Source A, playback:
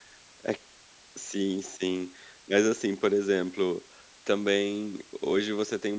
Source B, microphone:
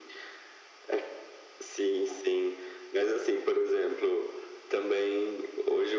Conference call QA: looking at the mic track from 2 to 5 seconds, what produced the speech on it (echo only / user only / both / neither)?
echo only